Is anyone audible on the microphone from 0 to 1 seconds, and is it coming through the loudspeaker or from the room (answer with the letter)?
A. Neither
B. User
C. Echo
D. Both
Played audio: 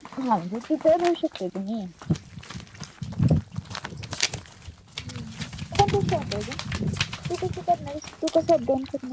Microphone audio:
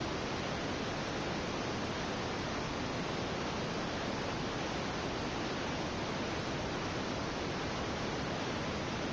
A